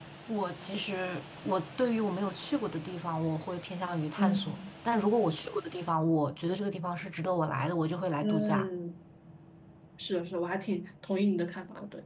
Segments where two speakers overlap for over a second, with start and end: none

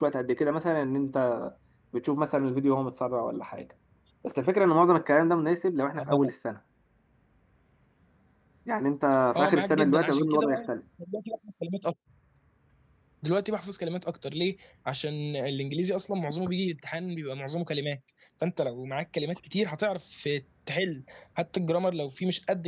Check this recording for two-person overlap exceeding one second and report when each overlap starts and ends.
9.4-10.6

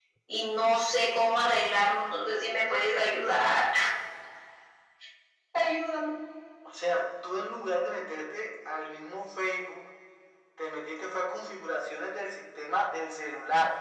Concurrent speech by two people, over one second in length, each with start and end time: none

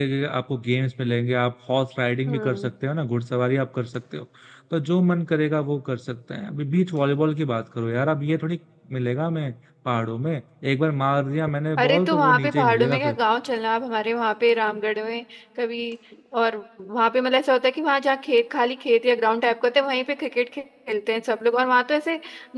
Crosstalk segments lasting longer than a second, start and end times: 11.8-13.2

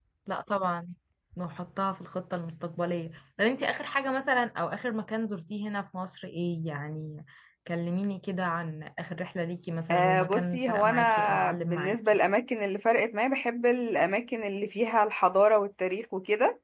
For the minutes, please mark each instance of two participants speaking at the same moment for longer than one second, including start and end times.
9.9-12.2

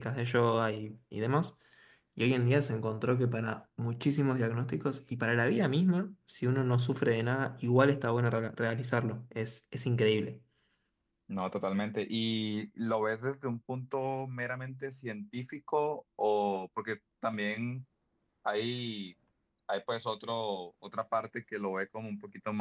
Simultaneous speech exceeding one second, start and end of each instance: none

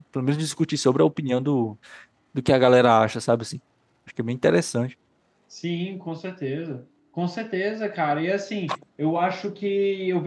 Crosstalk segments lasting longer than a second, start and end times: none

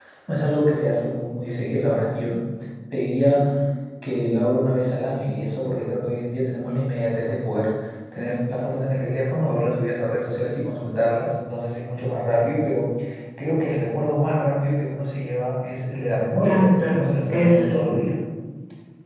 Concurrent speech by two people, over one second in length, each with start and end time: 16.4-17.9

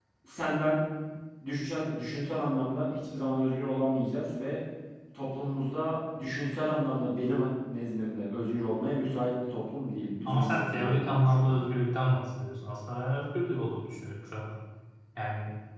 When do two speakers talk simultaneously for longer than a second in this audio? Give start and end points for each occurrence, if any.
10.2-11.6

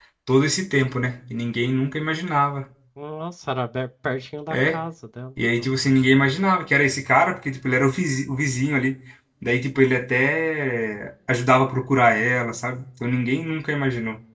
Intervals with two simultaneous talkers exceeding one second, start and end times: none

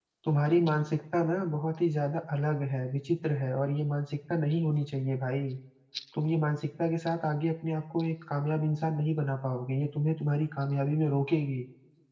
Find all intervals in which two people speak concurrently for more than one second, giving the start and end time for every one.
none

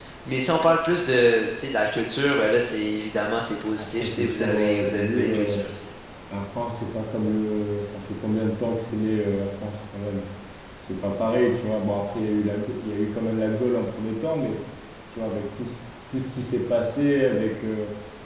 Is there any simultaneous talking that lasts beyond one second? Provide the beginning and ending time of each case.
3.8-5.6

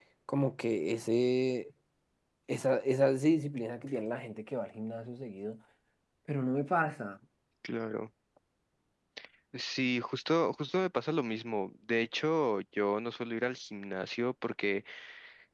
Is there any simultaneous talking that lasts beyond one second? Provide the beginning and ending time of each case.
none

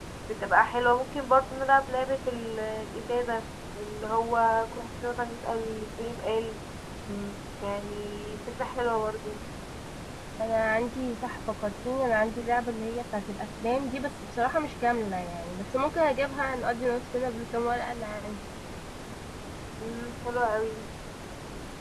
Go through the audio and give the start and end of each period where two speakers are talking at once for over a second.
none

